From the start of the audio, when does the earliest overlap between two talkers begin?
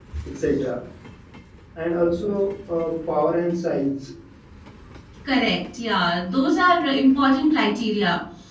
none

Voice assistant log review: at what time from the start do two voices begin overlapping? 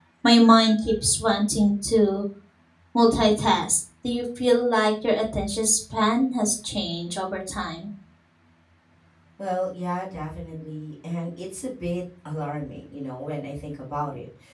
none

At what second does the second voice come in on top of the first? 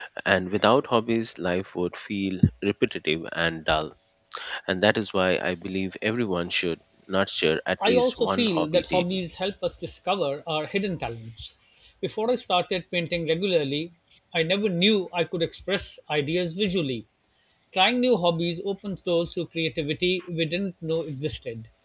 8 s

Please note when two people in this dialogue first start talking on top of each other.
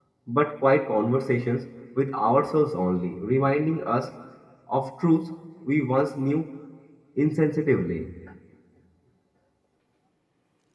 none

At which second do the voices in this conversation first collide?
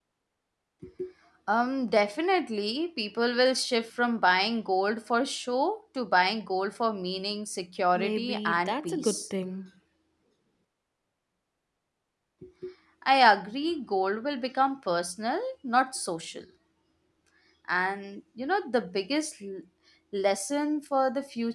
8 s

